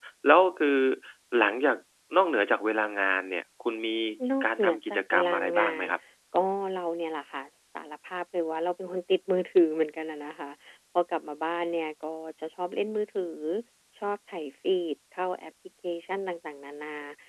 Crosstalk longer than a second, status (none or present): present